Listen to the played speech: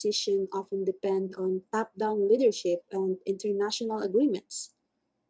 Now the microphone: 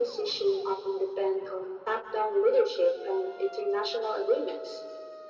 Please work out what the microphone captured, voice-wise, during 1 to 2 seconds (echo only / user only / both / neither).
echo only